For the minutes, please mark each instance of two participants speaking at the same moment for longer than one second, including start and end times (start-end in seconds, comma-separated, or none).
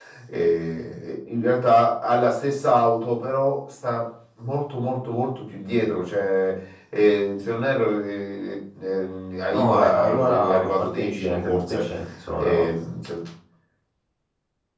9.5-11.8